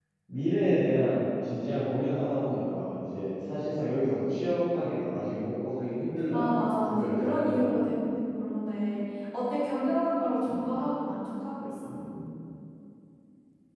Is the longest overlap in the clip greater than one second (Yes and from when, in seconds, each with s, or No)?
Yes, from 6.3 s